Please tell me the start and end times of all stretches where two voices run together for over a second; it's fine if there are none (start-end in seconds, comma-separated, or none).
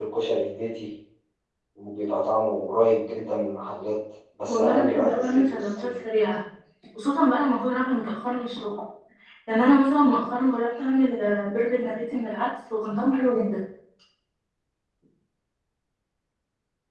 4.5-5.9